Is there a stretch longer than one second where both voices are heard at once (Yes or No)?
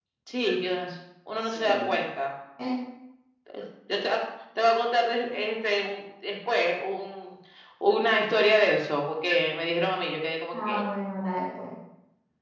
No